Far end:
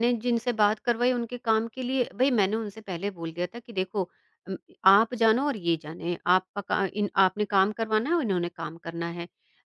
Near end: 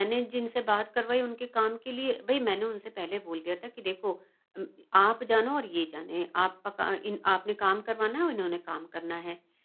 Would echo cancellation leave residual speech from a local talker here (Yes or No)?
No